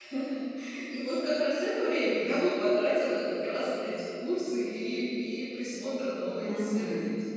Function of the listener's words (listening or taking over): taking over